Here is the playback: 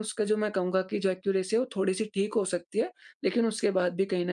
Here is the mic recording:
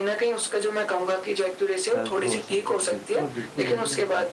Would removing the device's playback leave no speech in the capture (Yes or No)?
No